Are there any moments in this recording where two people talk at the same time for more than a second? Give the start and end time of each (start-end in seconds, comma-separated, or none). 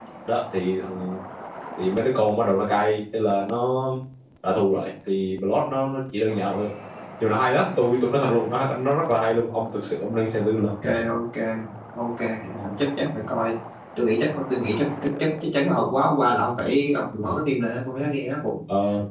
none